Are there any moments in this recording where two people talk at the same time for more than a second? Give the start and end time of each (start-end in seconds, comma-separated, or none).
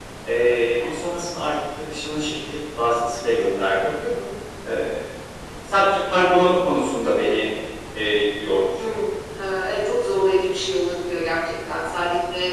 none